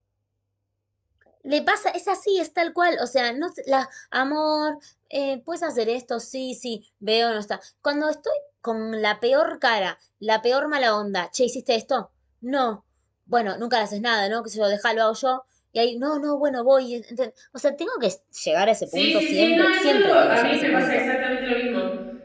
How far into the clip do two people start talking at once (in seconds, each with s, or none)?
18.9 s